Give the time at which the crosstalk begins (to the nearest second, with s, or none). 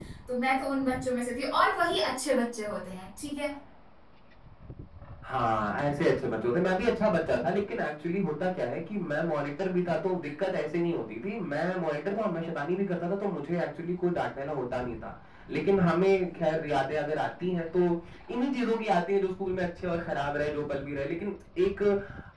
none